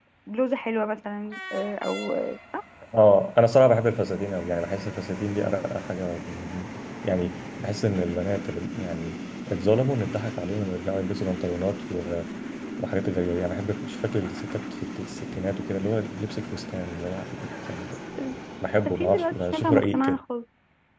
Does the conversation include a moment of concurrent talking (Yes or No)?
Yes